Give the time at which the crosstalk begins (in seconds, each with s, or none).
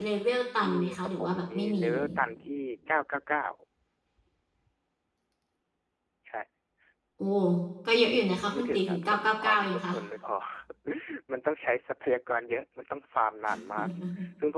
0.7 s